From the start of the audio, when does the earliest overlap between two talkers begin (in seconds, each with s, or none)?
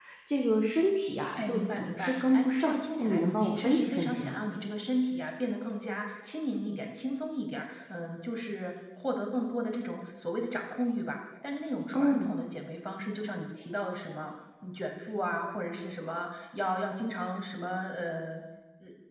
1.4 s